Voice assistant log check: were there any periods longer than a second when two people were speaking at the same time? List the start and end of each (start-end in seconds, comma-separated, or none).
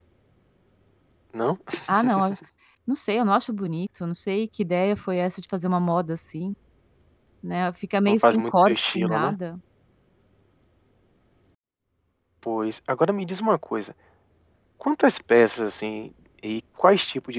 8.1-9.3